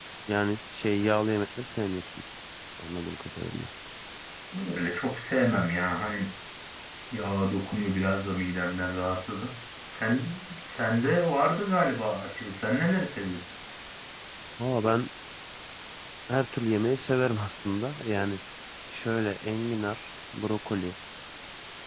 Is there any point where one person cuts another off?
No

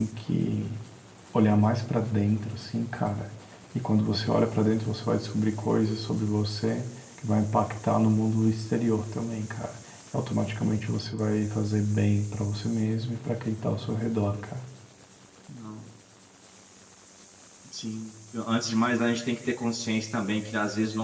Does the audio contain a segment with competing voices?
No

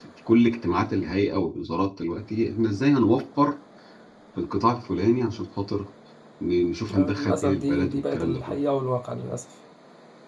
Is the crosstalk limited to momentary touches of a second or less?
No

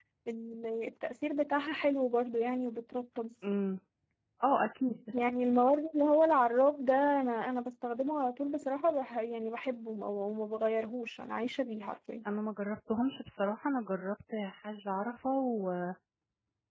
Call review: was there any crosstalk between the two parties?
No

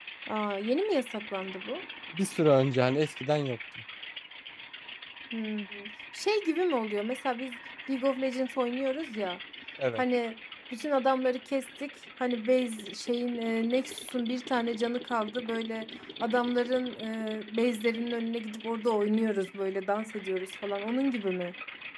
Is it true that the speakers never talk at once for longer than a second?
Yes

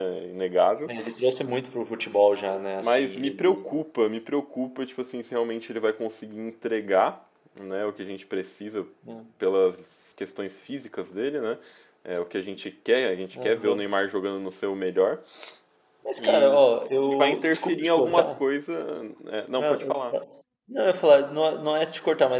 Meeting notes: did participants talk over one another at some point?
Yes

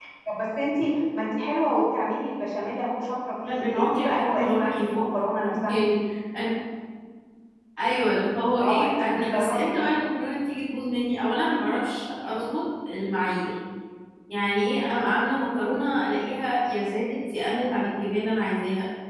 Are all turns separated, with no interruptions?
No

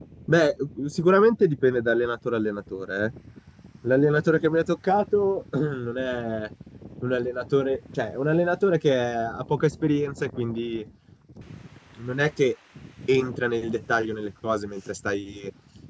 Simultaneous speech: No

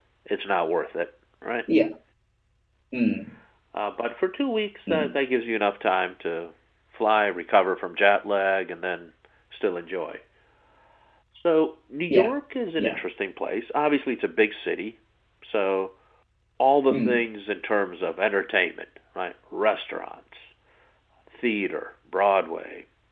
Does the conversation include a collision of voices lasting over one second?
No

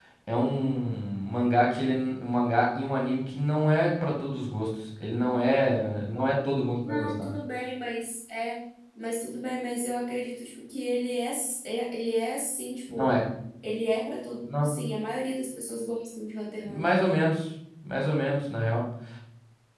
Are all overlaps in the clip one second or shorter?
Yes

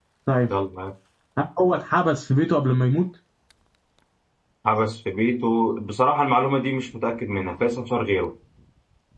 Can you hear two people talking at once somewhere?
No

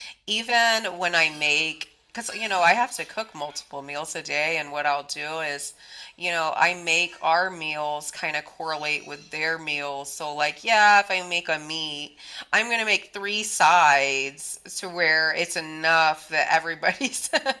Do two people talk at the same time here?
No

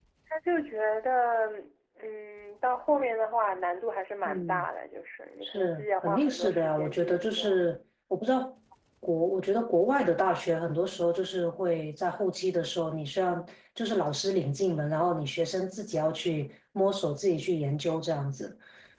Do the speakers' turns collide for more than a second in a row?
Yes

